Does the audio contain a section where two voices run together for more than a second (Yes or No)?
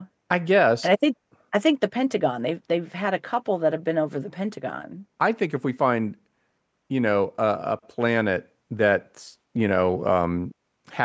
No